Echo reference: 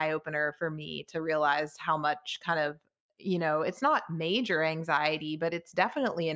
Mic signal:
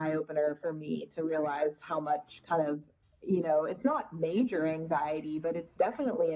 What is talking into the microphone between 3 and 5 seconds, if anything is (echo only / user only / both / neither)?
echo only